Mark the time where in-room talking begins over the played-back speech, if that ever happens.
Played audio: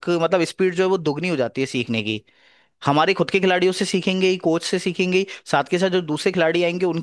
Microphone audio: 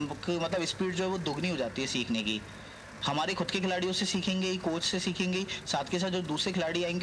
none

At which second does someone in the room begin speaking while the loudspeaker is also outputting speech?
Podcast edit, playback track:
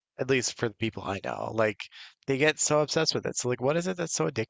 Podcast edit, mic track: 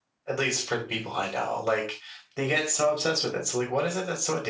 none

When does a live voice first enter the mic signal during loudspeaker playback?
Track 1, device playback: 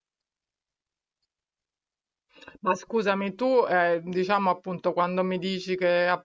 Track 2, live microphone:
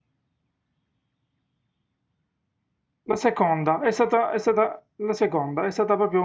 3.0 s

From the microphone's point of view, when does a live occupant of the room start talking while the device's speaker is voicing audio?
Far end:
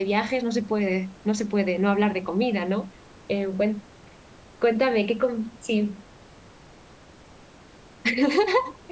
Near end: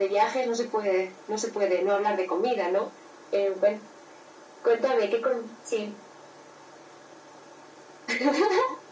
none

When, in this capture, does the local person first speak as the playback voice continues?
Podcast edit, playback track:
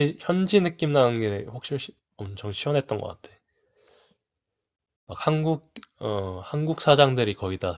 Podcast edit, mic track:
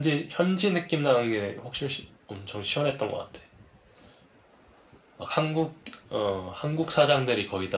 none

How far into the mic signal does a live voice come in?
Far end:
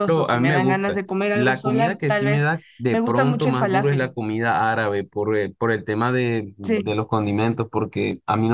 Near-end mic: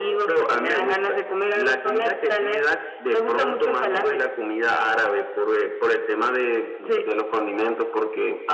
none

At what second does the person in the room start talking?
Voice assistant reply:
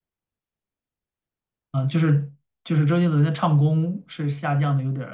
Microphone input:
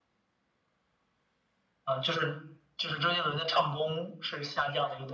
none

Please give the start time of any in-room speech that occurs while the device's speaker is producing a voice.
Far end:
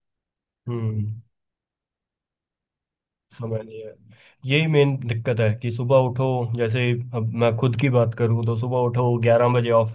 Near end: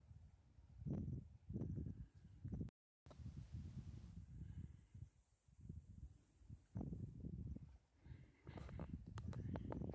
none

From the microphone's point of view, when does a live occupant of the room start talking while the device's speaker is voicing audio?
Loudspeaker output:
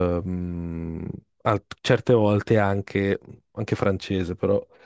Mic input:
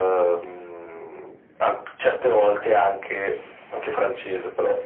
none

